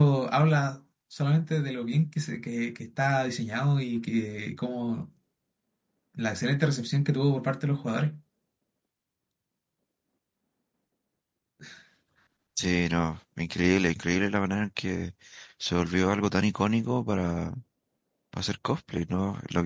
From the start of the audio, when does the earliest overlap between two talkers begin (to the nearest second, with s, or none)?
none